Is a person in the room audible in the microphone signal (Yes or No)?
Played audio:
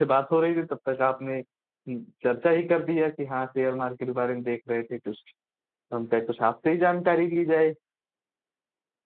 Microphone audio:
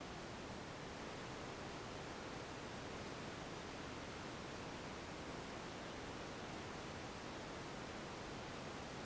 No